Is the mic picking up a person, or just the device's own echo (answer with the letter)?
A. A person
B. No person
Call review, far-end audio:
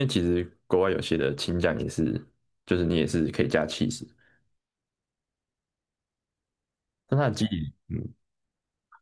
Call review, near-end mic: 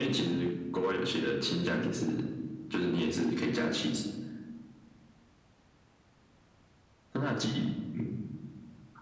B